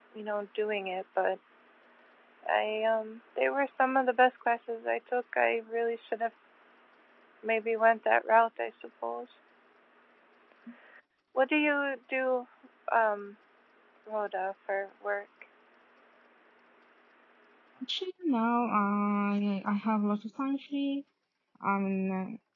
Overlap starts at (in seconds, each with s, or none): none